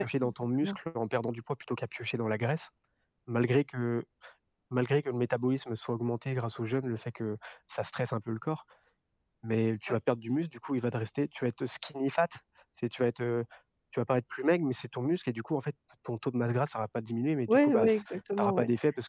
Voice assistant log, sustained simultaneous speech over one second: present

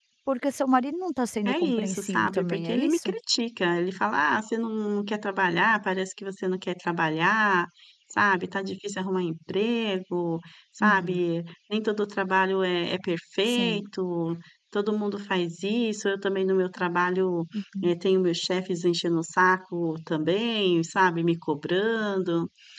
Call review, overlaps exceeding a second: present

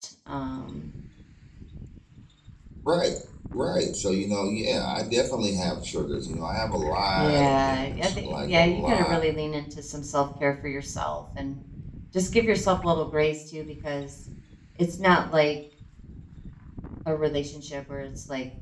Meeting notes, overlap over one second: present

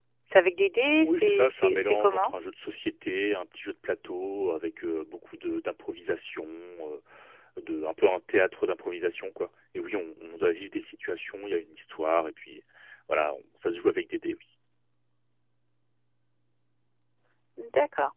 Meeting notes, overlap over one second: present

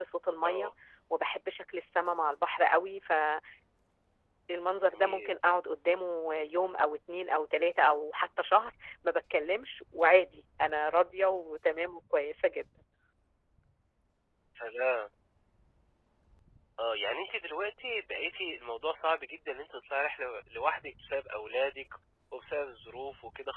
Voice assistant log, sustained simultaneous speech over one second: none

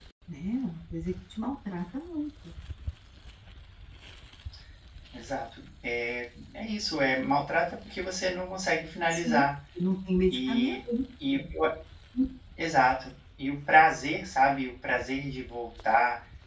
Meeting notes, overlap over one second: none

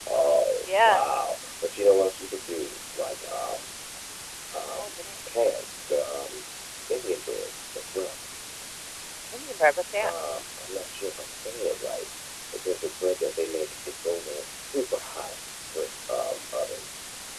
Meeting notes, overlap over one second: none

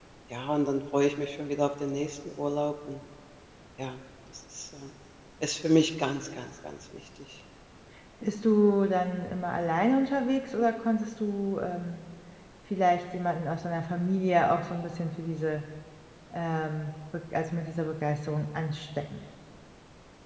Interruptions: none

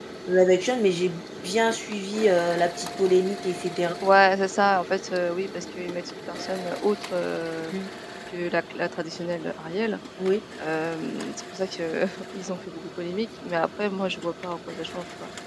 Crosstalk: none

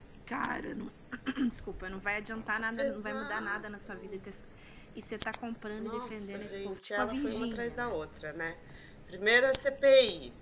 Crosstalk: present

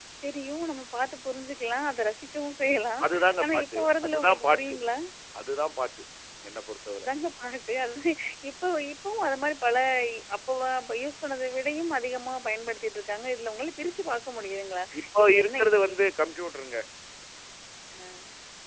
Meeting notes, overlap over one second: present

